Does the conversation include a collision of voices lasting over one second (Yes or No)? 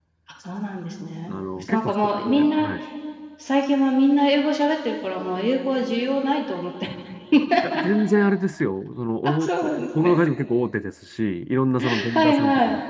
Yes